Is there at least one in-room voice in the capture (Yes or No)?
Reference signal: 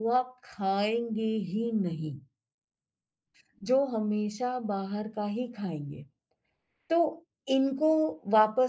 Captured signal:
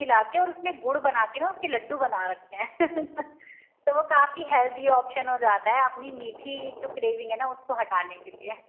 Yes